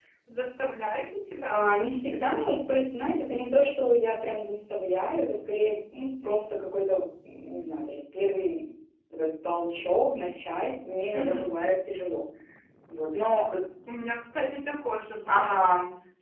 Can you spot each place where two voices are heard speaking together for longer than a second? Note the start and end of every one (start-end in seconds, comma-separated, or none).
none